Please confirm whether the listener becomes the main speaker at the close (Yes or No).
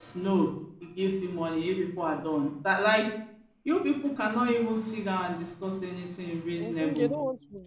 Yes